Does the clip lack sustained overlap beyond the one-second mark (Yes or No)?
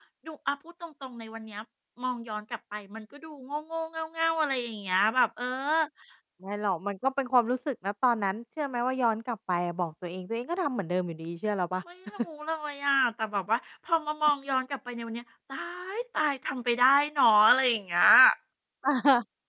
Yes